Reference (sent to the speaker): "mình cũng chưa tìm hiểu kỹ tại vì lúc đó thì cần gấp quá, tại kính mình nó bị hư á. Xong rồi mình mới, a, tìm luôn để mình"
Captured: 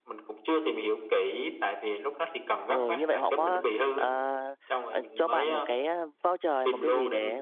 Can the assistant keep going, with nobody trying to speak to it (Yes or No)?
No